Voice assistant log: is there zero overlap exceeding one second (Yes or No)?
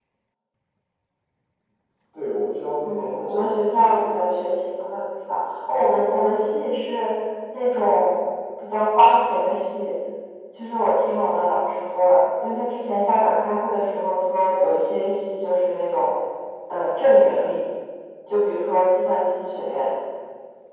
No